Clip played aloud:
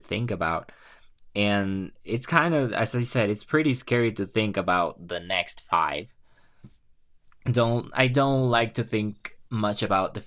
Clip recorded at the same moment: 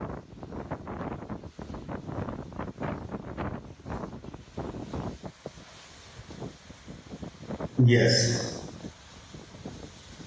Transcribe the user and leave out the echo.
Yes.

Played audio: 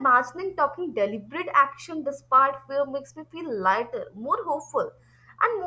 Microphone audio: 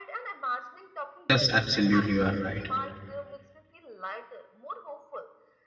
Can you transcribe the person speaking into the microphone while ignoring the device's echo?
Yes, absolutely, you are right,

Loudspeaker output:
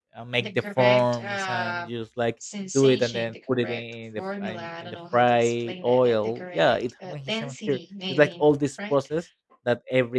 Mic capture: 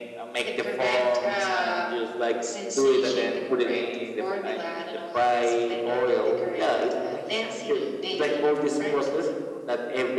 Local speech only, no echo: none

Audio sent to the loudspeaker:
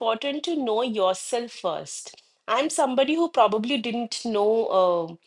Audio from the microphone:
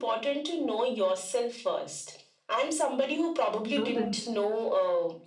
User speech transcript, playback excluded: How nice.

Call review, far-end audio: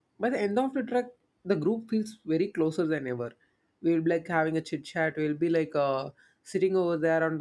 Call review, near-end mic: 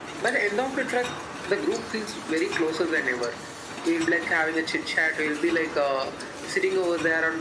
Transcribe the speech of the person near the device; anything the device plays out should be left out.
none

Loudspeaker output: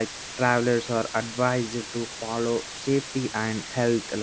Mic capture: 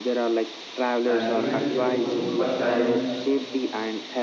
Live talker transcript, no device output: and he went there for you know first time

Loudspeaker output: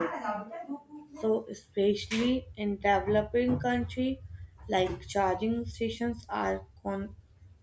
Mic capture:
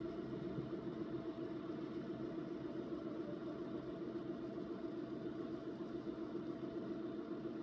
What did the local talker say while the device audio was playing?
none

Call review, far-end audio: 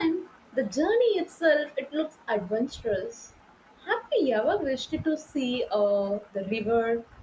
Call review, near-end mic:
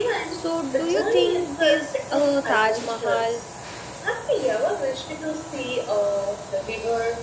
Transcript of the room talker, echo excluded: so do you think this uh, Taj Mahal

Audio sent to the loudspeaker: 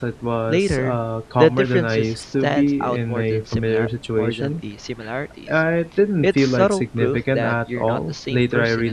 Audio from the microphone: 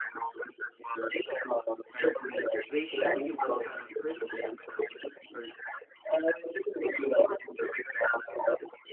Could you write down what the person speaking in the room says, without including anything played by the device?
They show you what kind of person you're becoming, or

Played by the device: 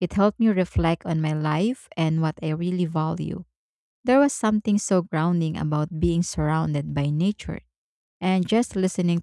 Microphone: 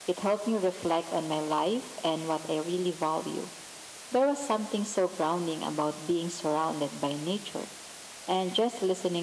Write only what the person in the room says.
none

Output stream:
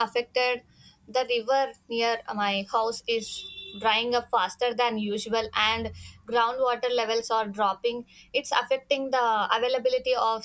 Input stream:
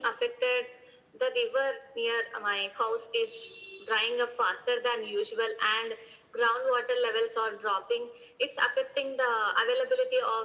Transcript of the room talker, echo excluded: none

